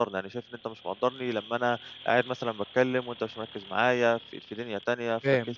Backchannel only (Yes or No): No